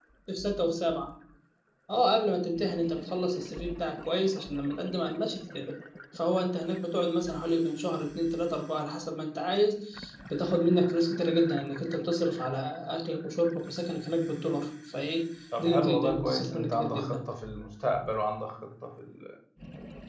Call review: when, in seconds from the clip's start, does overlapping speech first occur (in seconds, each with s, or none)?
15.5 s